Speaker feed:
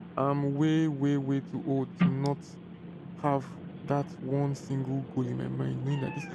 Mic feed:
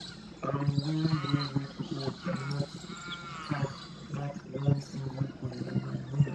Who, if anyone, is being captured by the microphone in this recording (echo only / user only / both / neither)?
echo only